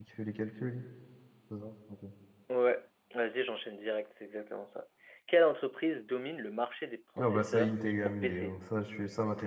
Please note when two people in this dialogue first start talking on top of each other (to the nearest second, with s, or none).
7 s